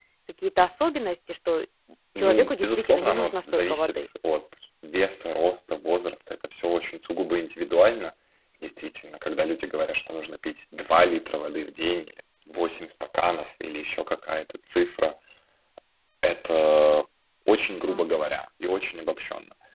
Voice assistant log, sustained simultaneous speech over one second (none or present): present